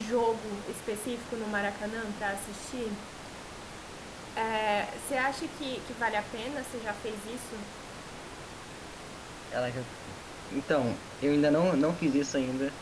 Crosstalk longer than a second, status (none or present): none